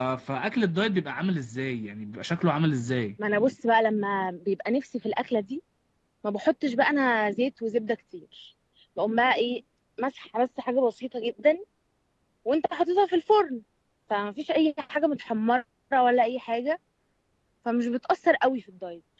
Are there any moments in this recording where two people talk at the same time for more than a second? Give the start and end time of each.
none

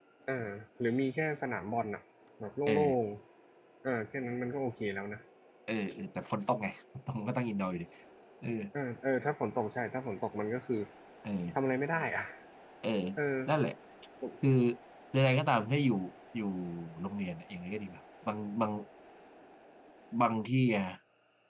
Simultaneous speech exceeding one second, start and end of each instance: none

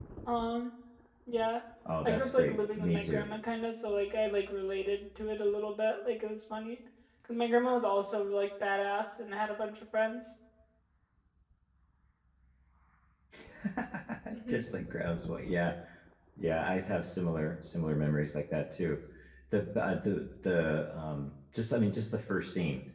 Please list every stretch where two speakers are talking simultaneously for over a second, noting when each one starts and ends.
2.0-3.3

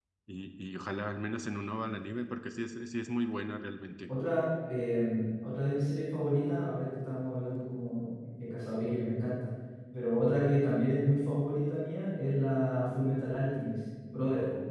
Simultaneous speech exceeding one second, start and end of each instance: none

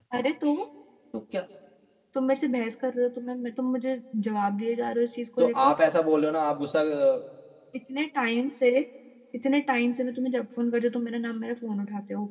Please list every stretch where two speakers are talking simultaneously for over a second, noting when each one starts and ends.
none

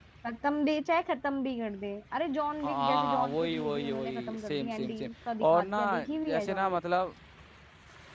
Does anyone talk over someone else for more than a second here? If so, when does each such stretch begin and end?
2.6-5.1, 5.5-6.8

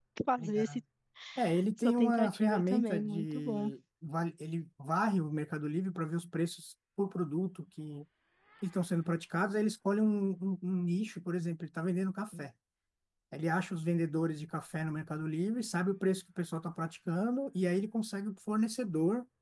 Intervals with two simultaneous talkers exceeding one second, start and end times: 1.8-3.7

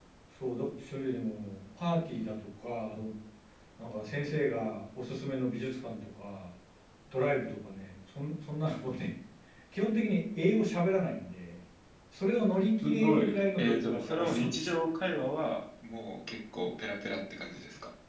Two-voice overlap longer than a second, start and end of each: 12.8-14.7

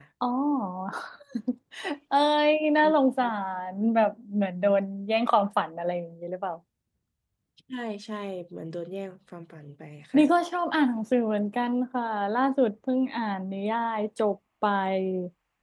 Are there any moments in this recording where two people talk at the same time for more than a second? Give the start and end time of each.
none

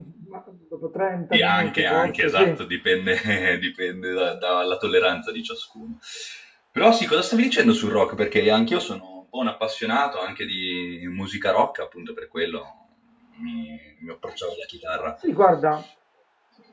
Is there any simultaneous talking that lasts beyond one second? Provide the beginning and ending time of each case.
1.3-2.6

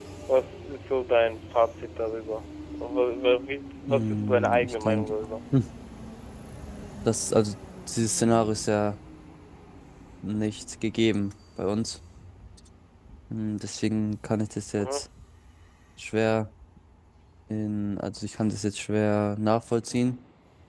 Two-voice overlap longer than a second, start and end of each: 3.9-5.1

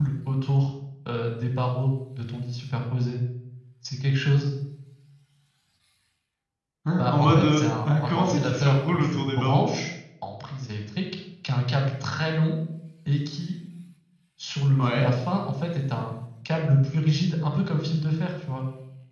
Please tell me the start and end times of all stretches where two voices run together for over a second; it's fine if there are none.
7.0-9.7

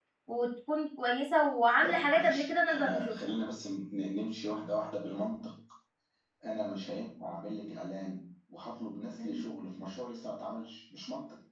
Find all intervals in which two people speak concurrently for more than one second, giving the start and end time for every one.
1.8-3.1

